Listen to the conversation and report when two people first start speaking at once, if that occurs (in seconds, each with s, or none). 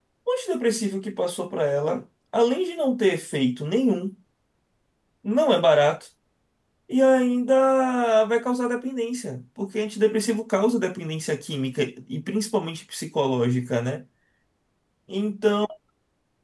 none